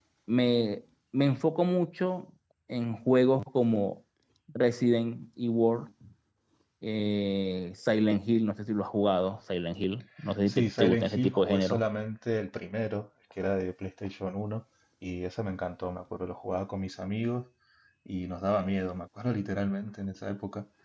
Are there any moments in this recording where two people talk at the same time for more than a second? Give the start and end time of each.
10.5-11.8

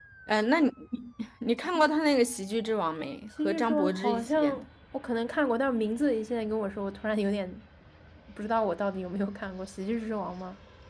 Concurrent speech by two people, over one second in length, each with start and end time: 3.4-4.6

